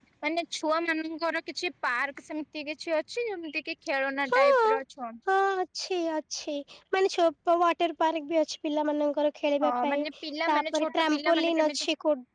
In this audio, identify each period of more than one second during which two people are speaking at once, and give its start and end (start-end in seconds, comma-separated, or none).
10.5-11.8